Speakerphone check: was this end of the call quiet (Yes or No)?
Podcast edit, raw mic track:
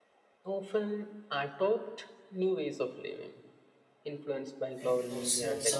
No